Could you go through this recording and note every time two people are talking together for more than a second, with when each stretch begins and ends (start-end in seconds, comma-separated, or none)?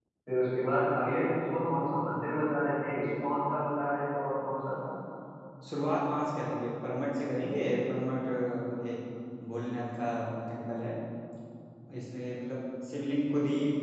none